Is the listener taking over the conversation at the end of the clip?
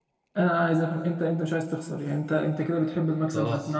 No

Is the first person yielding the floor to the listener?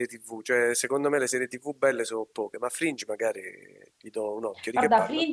Yes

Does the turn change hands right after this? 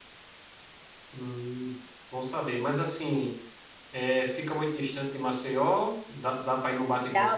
Yes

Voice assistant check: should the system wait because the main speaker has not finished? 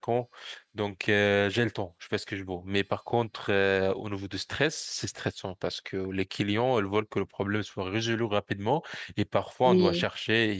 Yes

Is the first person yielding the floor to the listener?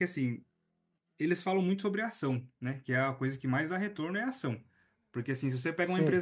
No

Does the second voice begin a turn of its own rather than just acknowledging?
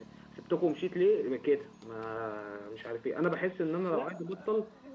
No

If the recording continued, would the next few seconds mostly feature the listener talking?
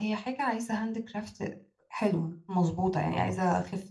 No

